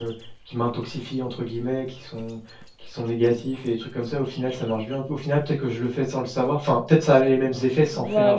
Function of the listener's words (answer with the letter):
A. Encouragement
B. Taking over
B